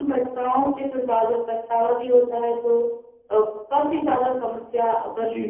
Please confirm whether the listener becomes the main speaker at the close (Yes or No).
Yes